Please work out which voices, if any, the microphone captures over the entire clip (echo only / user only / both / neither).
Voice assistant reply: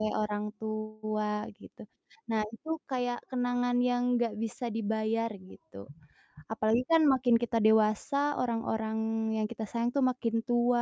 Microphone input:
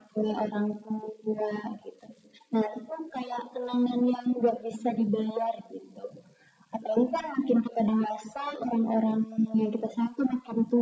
echo only